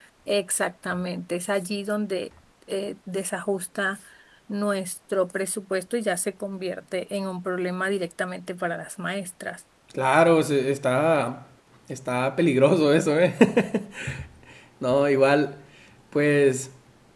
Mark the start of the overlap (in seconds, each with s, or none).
none